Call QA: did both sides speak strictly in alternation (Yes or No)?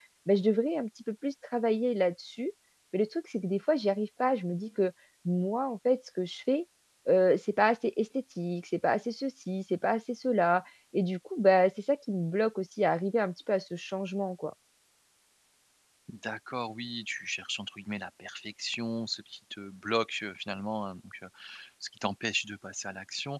Yes